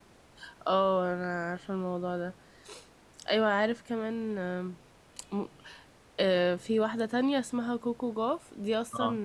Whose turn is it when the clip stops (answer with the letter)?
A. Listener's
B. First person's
B